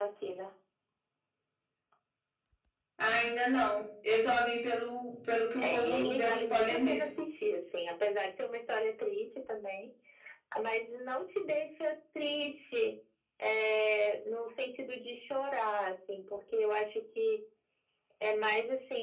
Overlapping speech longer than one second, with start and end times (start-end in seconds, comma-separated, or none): 5.6-7.1